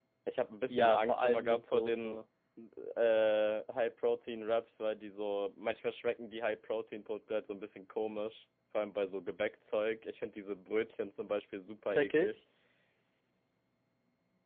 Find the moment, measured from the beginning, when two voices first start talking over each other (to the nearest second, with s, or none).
1 s